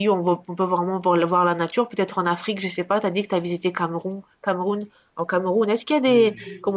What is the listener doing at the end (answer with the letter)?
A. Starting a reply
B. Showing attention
B